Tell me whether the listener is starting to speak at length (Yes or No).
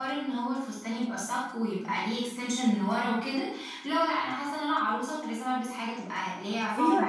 Yes